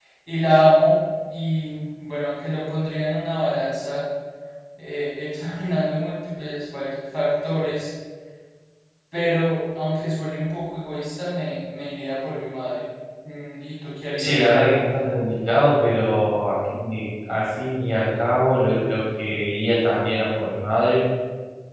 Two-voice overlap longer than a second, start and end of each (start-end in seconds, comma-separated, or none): none